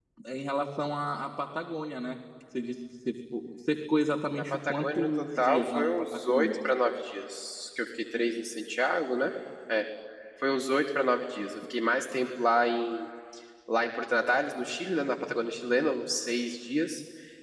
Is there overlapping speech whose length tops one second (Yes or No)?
Yes